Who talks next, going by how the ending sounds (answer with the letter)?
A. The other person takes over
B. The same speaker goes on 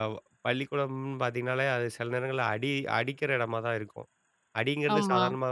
B